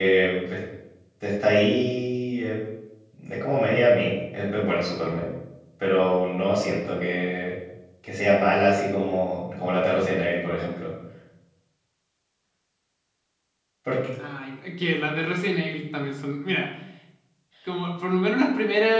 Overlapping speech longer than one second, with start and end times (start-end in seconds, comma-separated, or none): none